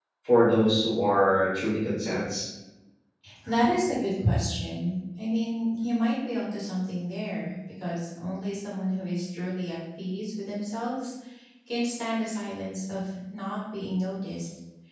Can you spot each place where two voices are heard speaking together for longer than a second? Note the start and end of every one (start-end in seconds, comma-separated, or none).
none